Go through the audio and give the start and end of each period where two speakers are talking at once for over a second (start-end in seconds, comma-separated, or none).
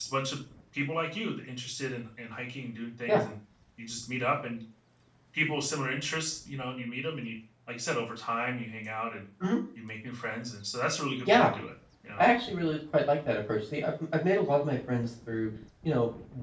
none